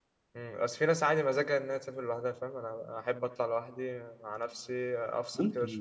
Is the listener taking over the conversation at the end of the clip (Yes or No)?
Yes